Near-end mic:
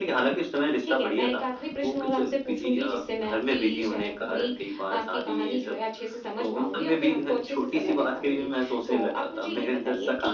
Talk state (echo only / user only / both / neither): echo only